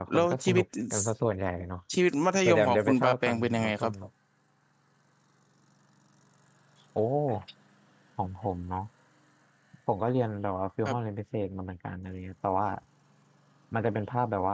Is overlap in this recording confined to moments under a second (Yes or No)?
No